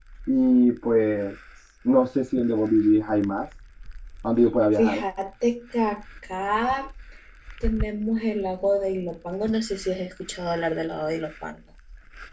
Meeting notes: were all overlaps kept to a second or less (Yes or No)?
Yes